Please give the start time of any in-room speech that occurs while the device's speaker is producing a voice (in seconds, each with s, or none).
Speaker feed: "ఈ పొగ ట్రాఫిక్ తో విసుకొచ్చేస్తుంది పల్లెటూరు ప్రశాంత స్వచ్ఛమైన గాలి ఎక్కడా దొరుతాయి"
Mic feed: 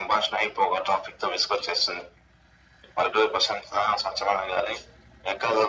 none